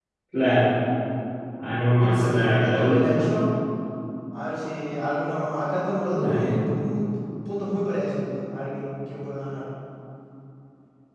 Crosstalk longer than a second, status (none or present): present